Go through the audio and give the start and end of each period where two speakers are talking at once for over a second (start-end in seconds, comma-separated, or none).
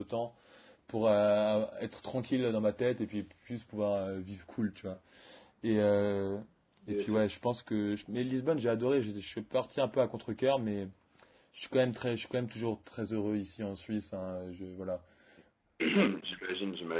none